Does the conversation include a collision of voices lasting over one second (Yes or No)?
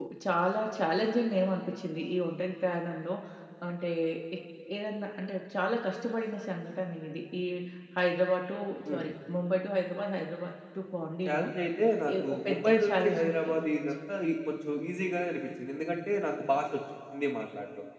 Yes